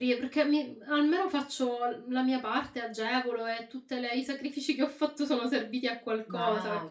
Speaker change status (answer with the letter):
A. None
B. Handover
B